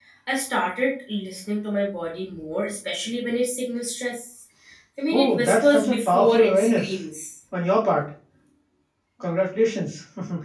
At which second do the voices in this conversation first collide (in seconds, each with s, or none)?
5.1 s